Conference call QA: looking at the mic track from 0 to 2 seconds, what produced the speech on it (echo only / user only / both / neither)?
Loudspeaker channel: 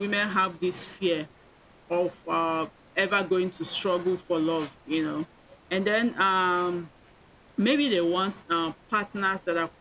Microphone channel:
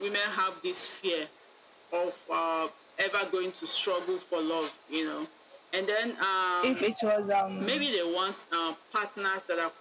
echo only